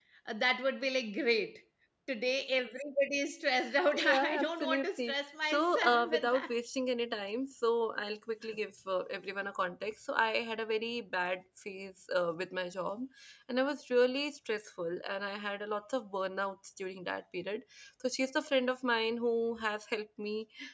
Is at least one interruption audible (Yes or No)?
Yes